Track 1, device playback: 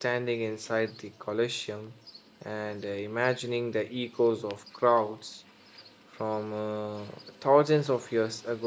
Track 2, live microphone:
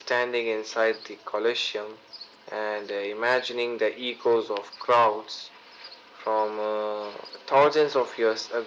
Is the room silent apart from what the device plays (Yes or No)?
Yes